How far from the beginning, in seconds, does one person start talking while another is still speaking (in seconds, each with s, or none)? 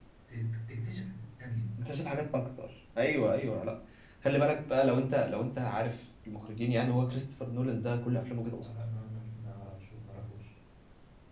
none